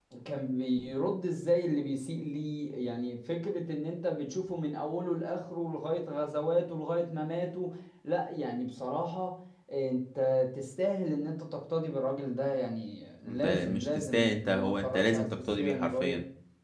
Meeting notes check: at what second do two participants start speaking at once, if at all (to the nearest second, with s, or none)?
13 s